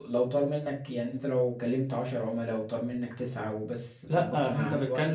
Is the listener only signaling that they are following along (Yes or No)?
No